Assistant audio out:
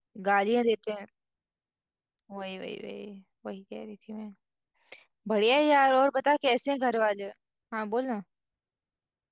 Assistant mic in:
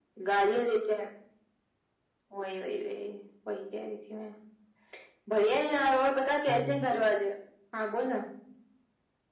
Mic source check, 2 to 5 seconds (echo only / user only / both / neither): echo only